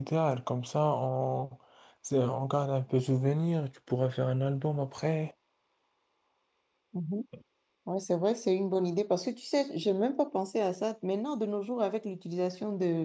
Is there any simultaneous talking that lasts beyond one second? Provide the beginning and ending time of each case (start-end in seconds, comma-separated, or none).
none